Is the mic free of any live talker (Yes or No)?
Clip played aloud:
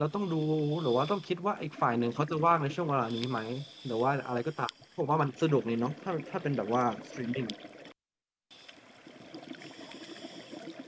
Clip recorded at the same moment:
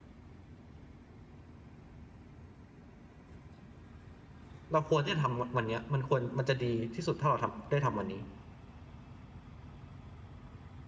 No